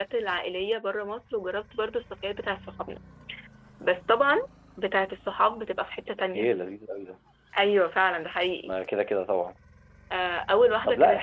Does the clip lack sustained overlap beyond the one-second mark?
Yes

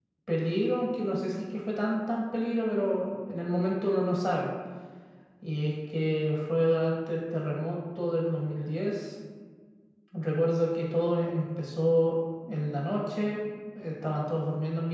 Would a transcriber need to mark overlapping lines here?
No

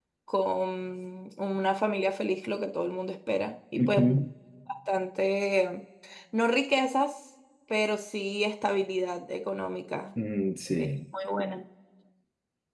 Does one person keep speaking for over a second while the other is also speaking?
No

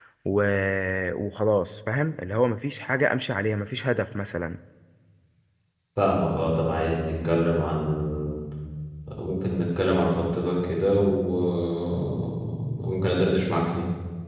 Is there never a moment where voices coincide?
Yes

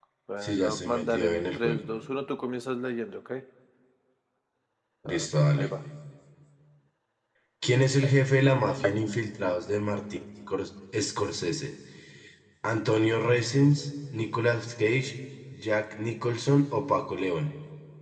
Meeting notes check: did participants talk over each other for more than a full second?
Yes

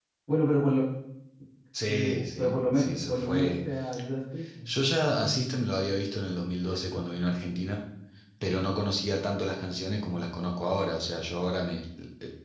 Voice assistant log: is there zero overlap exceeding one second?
No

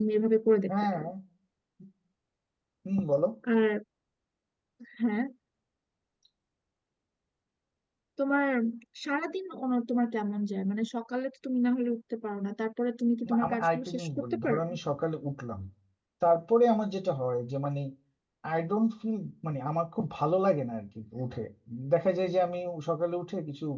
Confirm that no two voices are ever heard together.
No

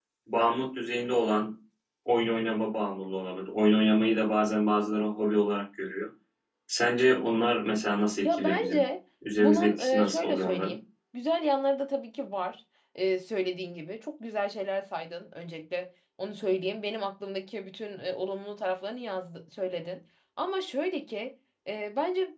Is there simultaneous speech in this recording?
Yes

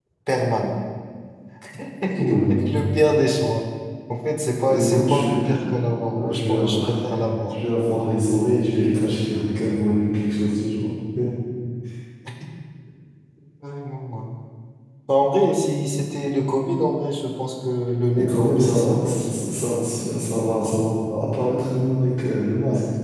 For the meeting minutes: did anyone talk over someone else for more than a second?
Yes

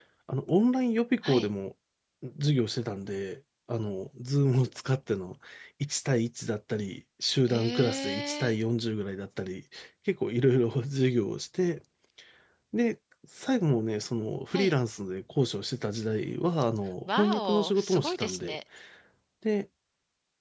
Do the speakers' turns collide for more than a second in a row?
Yes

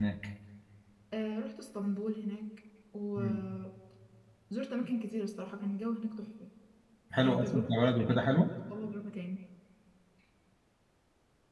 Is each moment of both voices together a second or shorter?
No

